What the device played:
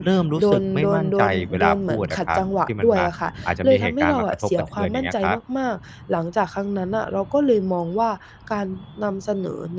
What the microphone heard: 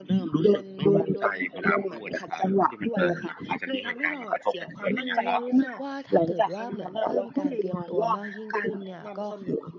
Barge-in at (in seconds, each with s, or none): 4.9 s